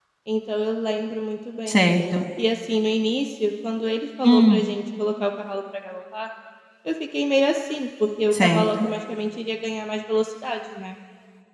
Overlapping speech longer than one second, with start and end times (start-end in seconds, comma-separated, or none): none